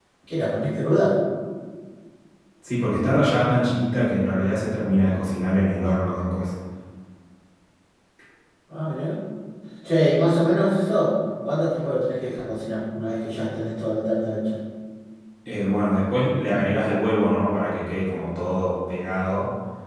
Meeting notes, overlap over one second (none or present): none